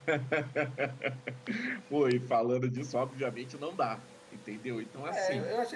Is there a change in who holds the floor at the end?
Yes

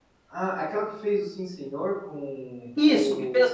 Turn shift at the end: Yes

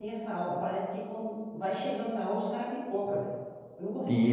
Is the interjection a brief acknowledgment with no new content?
No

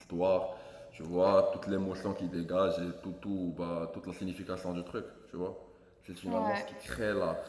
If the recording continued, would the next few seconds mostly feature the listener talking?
No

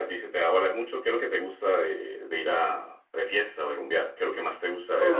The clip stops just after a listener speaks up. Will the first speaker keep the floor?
No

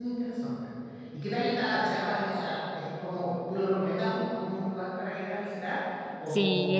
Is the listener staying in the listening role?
No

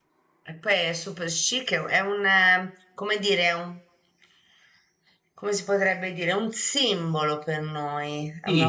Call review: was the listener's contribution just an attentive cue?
No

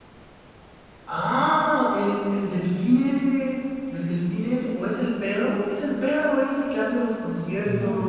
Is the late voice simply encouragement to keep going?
No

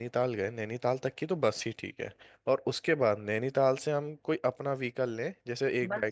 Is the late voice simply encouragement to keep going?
No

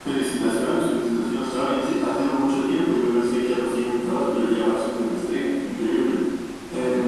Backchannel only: Yes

